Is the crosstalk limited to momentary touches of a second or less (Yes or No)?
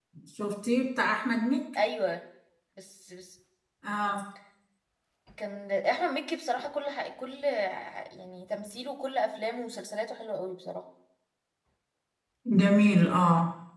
Yes